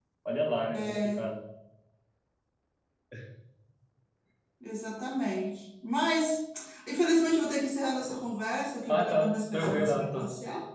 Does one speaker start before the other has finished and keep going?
Yes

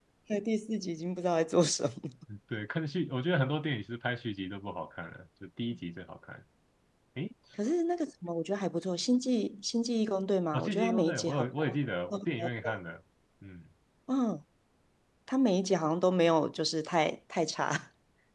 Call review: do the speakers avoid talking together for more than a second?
No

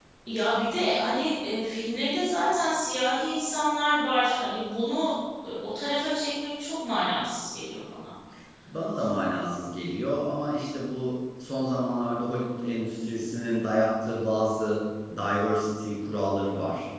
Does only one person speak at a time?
Yes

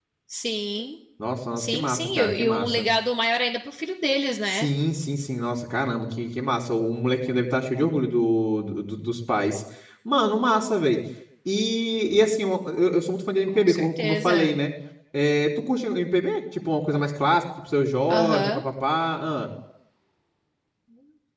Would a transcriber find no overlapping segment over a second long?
No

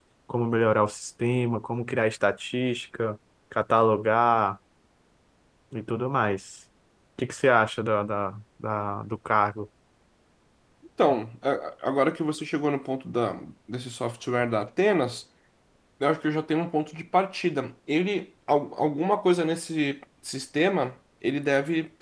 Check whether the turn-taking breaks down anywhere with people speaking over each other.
No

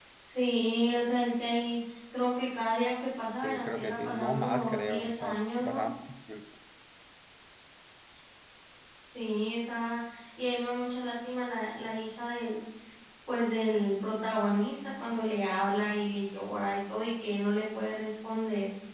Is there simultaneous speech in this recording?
Yes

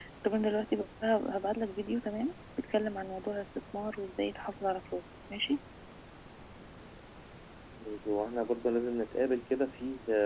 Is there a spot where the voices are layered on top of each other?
No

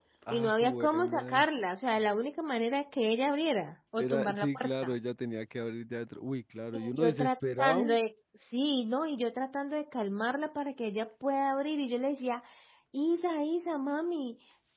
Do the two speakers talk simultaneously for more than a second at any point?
Yes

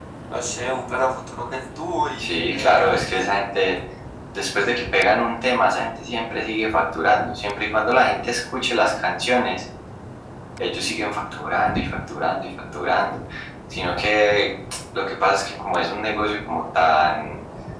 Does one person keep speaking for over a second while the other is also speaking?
Yes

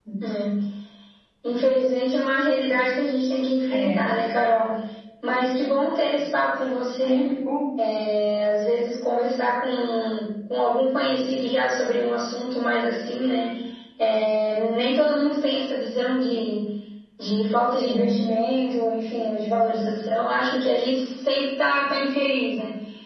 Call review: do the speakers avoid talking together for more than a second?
Yes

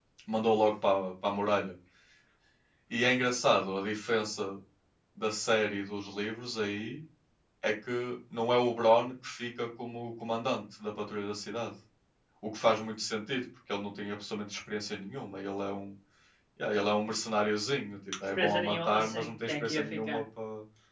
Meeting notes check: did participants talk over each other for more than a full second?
Yes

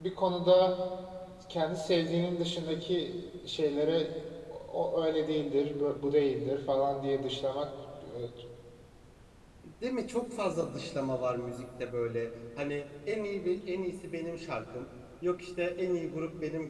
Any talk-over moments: No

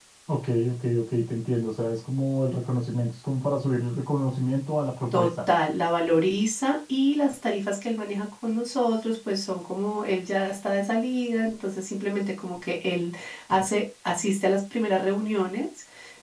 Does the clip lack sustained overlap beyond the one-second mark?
Yes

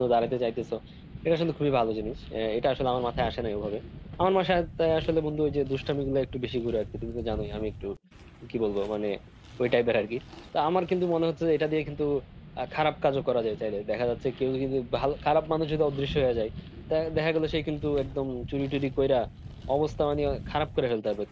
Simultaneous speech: No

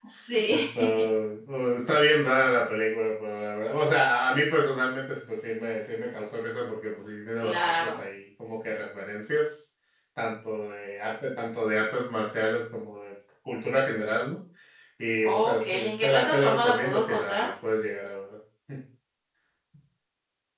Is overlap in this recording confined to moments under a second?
No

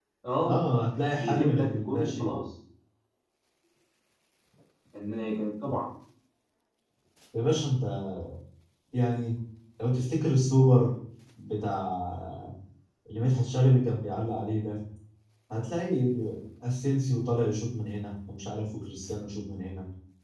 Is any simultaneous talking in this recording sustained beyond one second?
Yes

